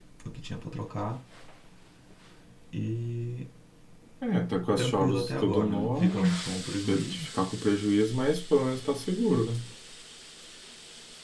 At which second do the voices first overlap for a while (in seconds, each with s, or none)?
4.8 s